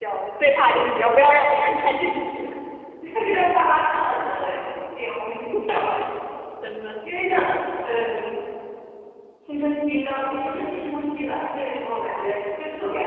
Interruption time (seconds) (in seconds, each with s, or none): none